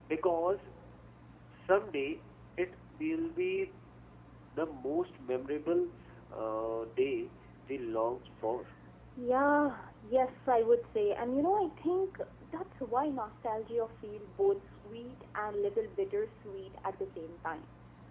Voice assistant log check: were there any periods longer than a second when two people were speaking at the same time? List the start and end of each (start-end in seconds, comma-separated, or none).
none